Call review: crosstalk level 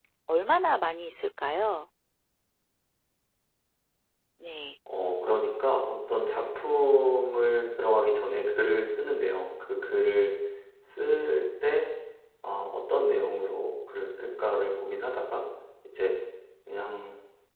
none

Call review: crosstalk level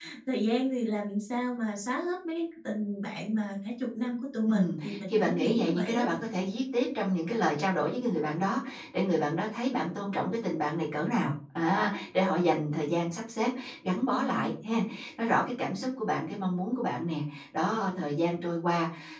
present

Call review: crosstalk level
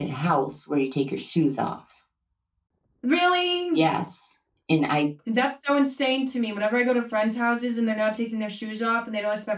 none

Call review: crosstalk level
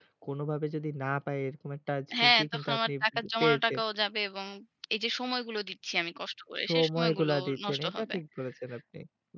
present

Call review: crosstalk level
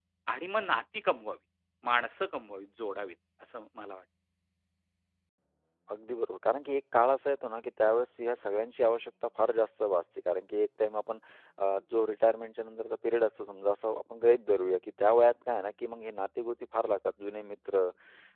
none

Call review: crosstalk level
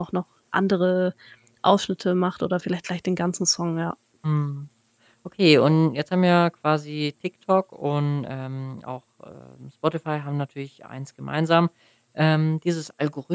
none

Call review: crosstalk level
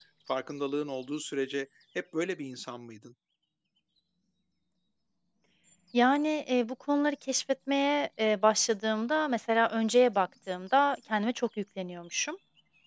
none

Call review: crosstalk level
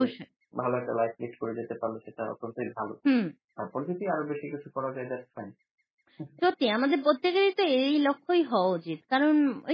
none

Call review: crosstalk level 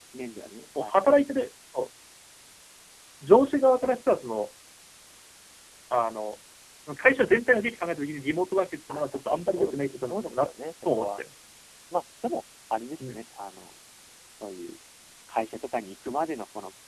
present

